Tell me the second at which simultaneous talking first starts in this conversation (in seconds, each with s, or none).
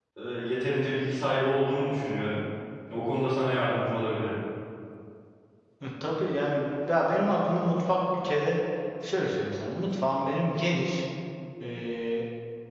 none